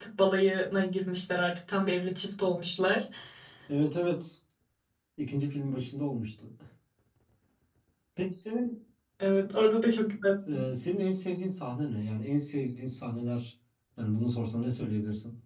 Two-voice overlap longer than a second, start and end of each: none

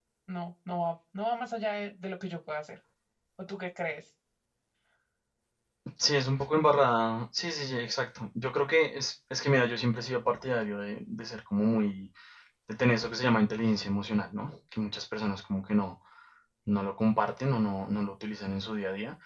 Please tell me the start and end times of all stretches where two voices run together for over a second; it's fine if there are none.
none

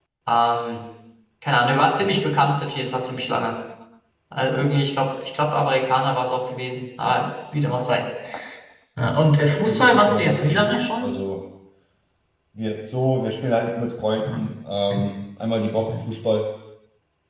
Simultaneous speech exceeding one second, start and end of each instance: 9.5-11.1

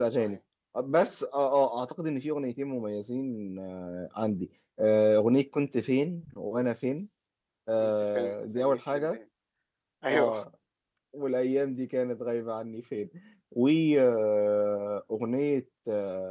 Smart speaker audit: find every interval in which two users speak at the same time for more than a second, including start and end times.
7.8-9.2

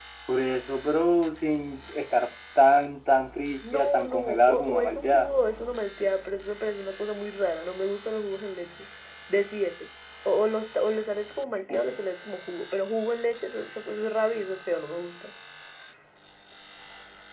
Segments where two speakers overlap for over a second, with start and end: 3.7-5.3

